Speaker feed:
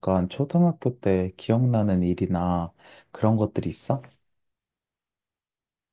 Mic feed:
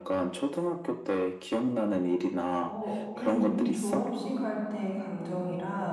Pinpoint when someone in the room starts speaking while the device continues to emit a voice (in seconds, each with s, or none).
2.6 s